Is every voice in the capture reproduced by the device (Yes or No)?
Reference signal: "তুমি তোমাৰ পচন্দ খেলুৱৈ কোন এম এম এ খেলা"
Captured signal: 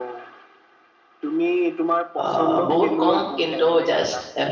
No